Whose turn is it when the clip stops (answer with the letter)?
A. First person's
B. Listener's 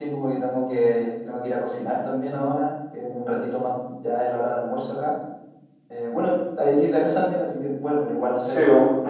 A